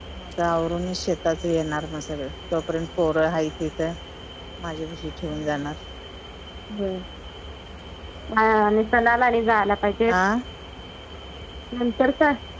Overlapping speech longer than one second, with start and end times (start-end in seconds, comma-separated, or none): none